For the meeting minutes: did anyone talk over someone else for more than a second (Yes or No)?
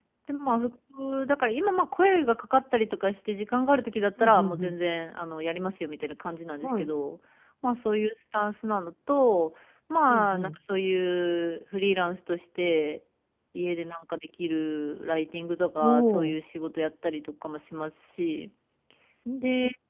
No